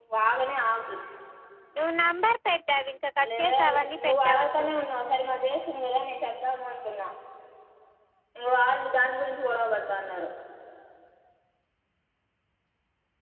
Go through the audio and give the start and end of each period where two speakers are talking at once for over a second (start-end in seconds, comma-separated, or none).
3.4-4.8